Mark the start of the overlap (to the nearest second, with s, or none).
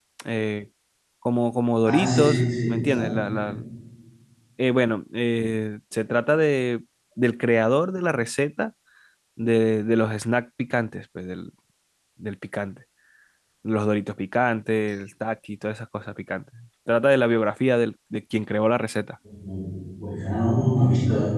2 s